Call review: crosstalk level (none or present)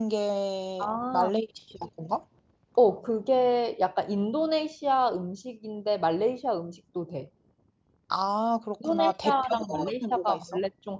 present